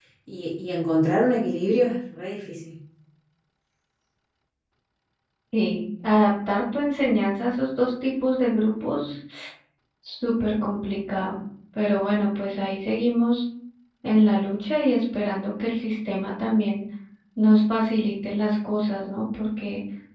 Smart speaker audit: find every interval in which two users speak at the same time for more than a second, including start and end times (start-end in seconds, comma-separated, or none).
none